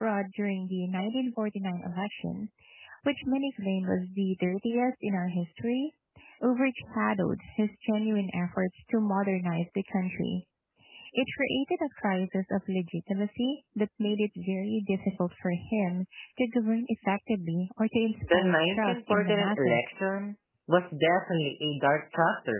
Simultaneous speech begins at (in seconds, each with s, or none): 18.3 s